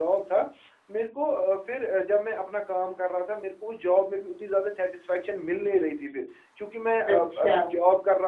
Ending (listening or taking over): listening